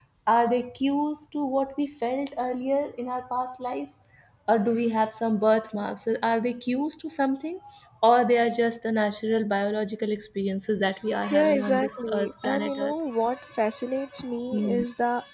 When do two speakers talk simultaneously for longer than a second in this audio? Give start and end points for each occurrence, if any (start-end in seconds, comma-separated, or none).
11.3-12.9